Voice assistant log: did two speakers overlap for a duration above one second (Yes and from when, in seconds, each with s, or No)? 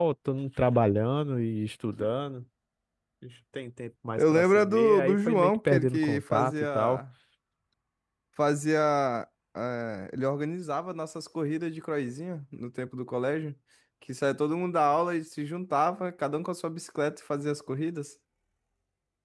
Yes, from 4.2 s